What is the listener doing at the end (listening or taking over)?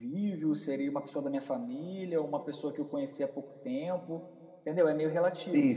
taking over